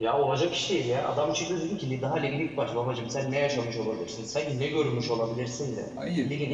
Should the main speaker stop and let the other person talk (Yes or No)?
No